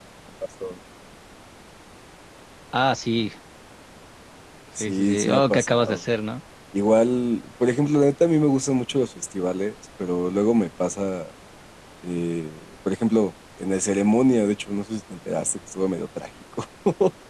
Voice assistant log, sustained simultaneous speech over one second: present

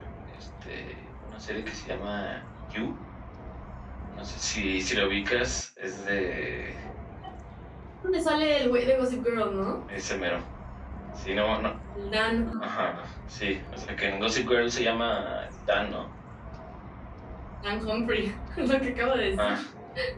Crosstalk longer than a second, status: none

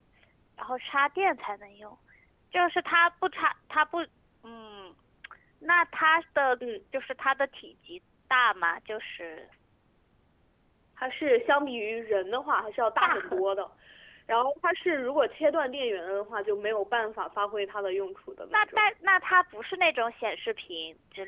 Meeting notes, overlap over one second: none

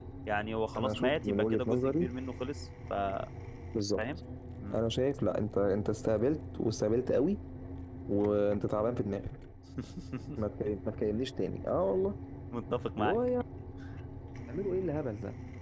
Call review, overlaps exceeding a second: present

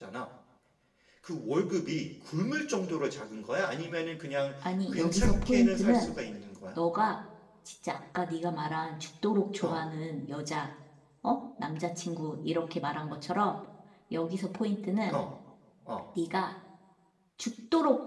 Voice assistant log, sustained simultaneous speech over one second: present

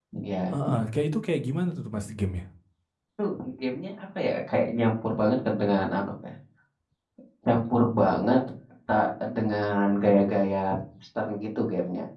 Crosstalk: none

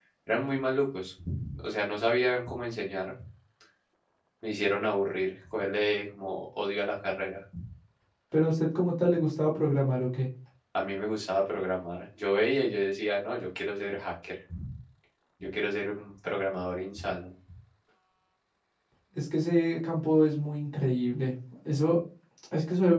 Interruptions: none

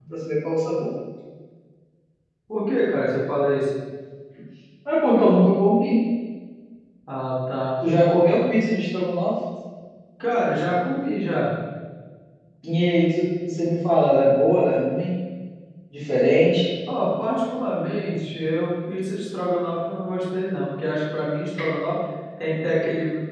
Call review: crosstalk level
none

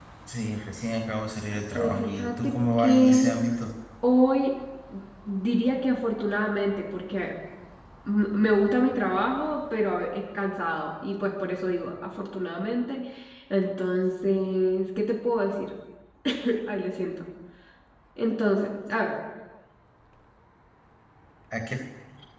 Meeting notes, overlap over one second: present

